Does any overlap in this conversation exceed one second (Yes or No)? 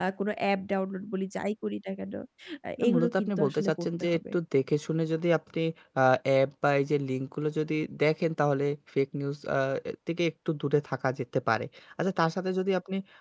Yes